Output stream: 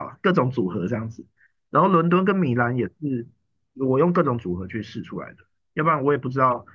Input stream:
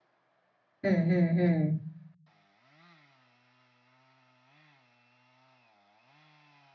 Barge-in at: 0.8 s

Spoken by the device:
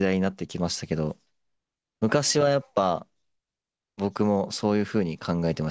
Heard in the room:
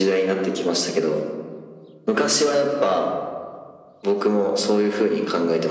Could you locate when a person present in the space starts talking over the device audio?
none

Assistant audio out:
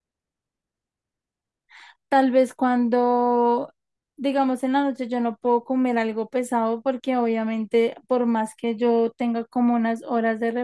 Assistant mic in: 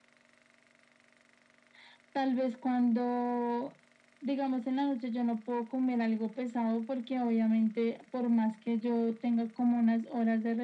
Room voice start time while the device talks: none

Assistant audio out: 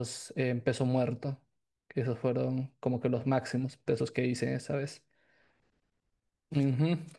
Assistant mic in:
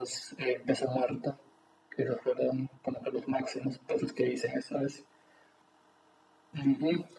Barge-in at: none

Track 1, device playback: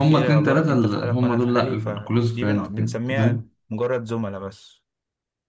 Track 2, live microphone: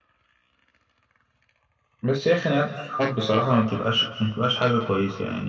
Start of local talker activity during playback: 2.0 s

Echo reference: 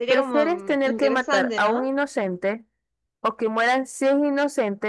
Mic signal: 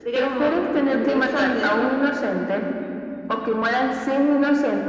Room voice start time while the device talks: none

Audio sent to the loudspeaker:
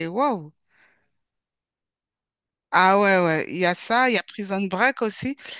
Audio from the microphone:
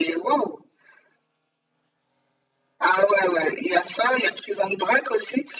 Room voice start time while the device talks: none

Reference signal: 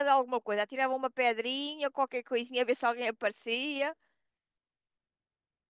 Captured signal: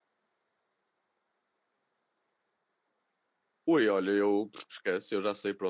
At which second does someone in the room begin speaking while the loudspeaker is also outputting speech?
3.7 s

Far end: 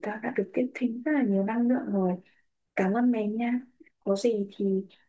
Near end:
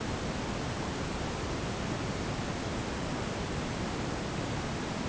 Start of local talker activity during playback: none

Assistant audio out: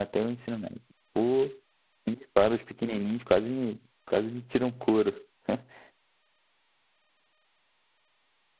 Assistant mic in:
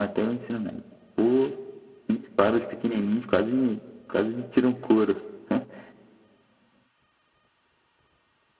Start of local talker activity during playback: none

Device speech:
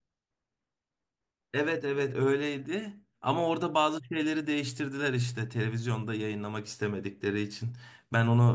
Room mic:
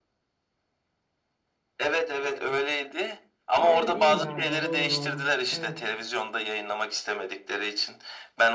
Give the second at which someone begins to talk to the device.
3.5 s

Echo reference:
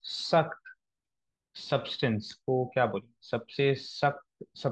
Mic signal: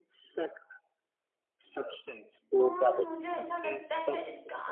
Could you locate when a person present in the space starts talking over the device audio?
2.6 s

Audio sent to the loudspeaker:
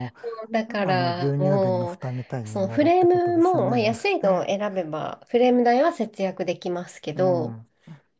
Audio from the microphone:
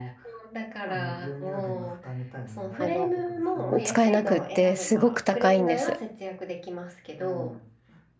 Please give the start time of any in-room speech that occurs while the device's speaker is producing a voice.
2.7 s

